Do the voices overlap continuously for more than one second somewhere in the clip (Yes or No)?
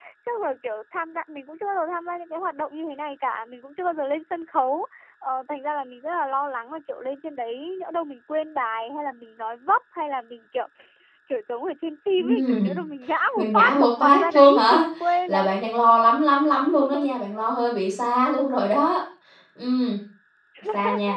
Yes